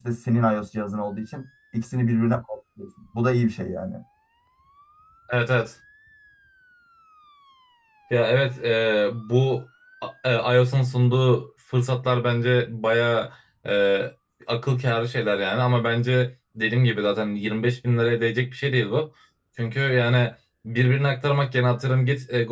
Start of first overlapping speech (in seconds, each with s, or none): none